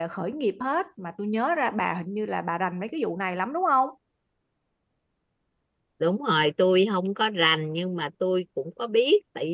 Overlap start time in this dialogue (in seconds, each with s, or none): none